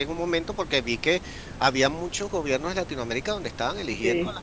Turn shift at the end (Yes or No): No